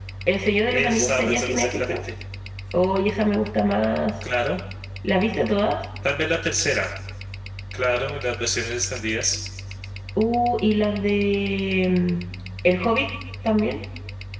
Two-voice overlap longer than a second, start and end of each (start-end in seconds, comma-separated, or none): 0.7-2.0